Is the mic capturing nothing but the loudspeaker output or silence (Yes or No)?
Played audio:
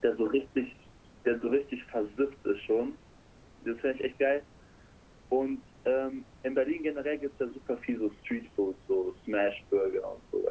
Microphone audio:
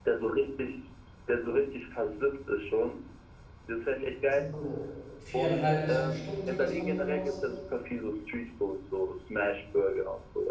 No